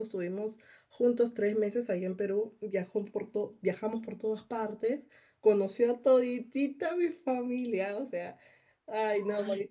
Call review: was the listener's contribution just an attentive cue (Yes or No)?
No